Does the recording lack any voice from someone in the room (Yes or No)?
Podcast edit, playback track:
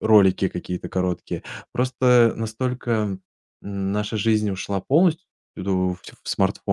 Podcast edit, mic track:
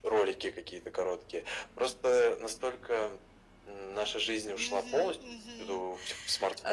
No